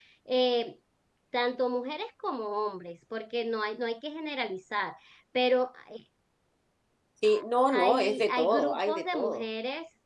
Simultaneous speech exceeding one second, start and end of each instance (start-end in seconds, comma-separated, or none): 7.7-9.4